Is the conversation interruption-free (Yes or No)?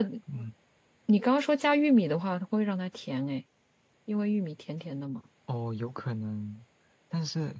Yes